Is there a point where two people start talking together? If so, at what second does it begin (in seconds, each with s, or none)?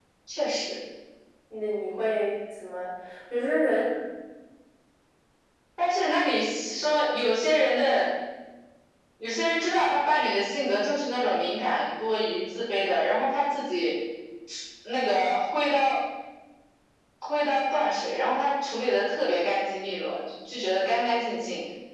none